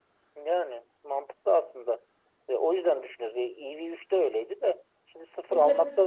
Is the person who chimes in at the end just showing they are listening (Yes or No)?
Yes